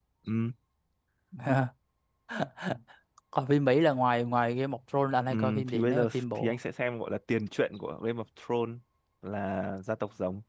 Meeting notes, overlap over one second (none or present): present